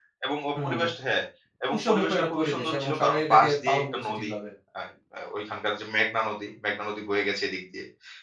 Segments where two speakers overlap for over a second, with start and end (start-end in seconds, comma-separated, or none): 1.7-4.3